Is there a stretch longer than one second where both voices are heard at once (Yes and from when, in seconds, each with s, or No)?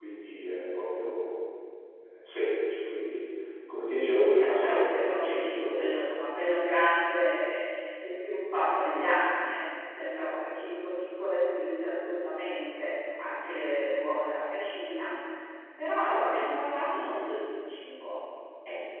Yes, from 3.9 s